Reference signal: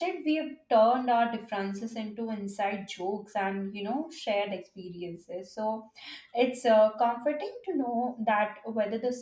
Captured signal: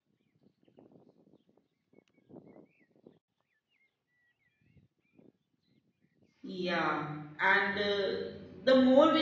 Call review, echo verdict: none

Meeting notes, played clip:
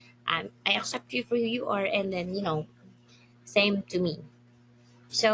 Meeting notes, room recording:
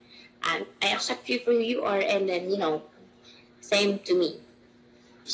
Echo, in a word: present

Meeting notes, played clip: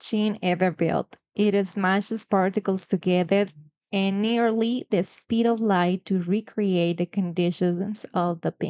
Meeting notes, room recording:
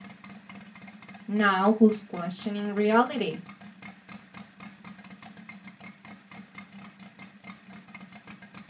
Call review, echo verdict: none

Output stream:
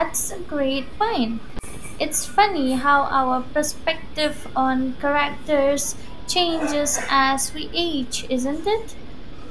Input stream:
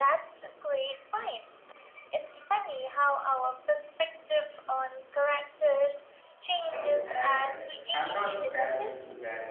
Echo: present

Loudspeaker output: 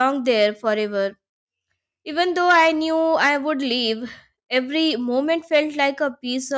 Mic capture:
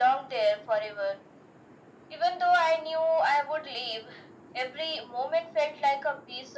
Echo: present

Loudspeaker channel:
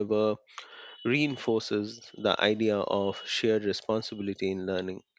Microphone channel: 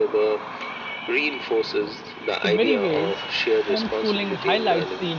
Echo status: present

